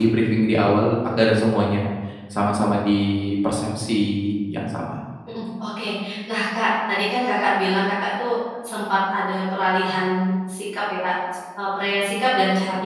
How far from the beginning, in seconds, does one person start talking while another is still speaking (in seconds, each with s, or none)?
none